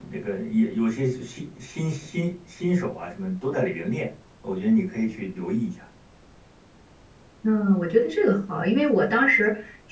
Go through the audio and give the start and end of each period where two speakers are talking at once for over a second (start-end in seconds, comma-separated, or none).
none